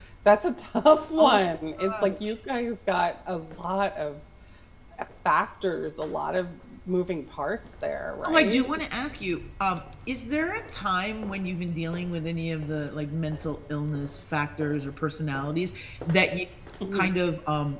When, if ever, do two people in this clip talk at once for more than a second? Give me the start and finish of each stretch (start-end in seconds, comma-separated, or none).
none